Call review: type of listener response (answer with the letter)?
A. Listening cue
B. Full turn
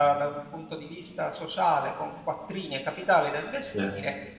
A